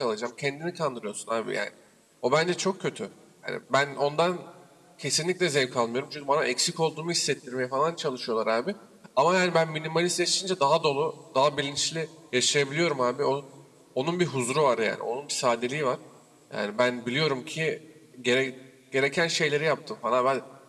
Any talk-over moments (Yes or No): No